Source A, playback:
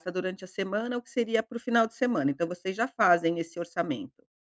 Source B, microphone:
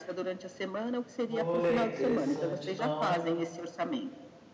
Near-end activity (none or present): present